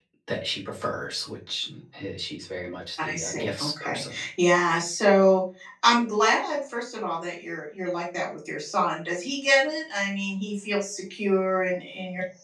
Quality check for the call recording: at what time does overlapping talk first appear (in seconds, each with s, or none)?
3.0 s